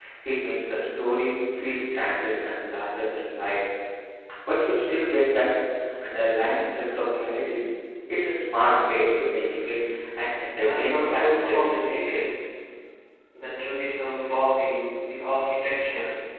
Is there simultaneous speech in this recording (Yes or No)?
Yes